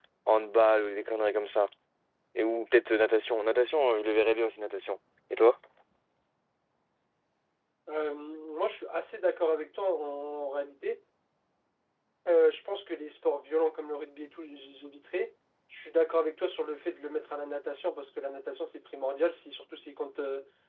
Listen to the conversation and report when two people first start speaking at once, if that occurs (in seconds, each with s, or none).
none